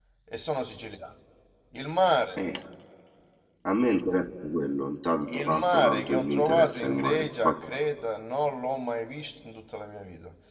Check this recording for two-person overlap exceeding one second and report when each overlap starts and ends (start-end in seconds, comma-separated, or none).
5.3-7.7